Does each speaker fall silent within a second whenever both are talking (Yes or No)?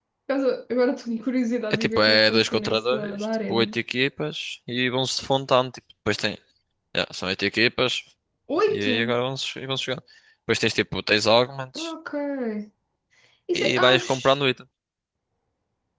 No